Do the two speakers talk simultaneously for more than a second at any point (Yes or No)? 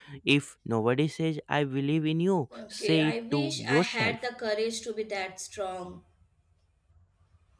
Yes